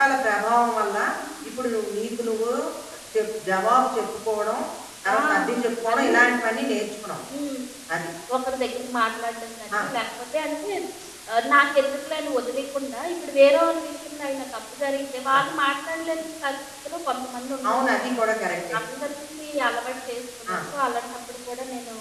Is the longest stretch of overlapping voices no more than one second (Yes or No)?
Yes